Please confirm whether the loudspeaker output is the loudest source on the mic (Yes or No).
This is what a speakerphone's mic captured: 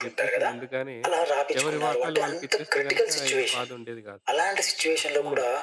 Yes